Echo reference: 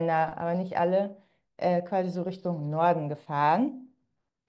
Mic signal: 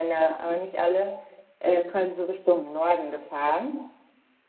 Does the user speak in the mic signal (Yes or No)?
No